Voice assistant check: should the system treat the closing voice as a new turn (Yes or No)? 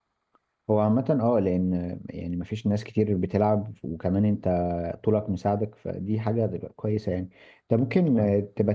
No